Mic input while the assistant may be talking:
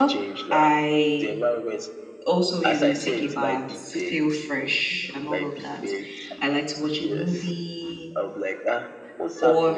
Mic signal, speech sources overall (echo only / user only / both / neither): both